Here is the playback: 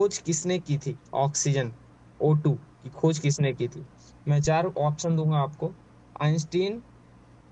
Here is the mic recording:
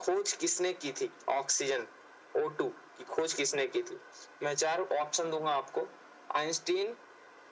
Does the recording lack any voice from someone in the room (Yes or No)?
Yes